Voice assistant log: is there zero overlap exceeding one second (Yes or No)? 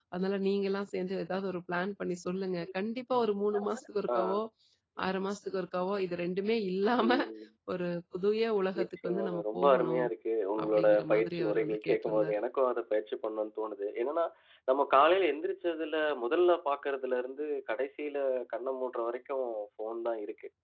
No